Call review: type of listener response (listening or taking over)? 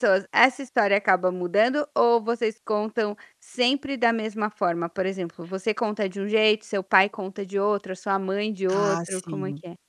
taking over